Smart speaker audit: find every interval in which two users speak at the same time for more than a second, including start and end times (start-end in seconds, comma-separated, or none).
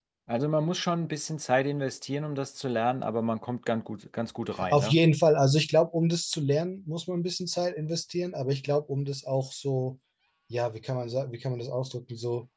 none